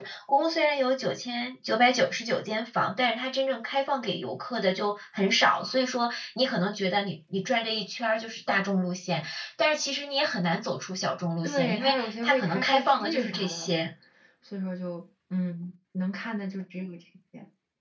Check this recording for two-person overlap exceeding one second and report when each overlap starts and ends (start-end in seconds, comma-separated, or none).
11.4-13.7